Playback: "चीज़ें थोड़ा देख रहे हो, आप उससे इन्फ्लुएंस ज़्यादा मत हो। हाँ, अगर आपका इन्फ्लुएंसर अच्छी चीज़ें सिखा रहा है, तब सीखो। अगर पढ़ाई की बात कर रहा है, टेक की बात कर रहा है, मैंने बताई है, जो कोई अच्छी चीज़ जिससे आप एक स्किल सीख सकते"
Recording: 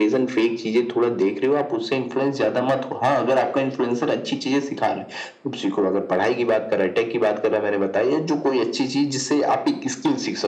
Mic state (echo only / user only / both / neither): echo only